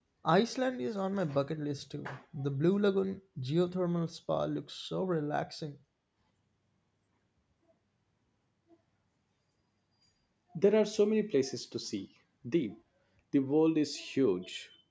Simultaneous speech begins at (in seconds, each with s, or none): none